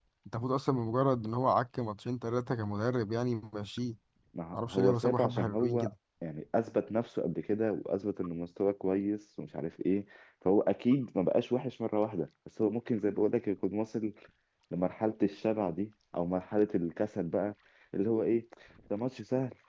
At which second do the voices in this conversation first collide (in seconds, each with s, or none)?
4.5 s